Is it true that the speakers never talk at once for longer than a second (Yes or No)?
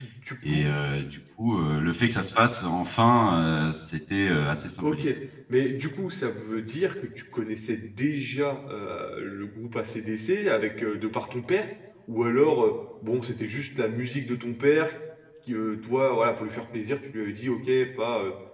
Yes